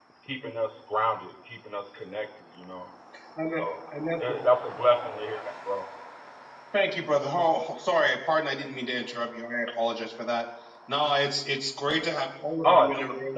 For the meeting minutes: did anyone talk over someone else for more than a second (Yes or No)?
No